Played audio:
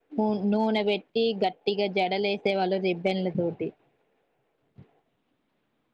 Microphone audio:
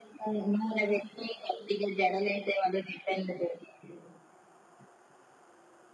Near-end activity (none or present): none